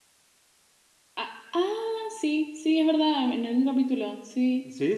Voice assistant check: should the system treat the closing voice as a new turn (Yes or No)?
Yes